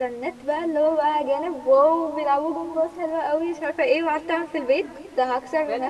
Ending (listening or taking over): taking over